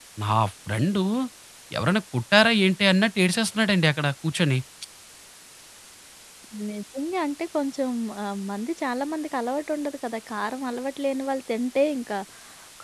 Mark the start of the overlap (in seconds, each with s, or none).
none